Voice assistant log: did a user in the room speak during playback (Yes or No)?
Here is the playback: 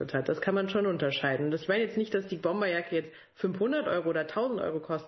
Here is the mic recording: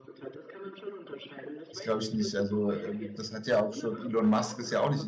Yes